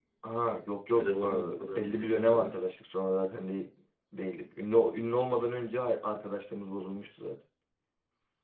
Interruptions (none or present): present